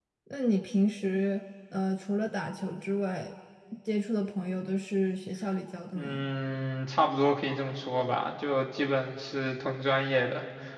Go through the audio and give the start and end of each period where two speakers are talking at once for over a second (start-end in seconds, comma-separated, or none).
none